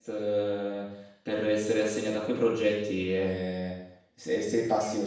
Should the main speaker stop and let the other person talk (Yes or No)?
No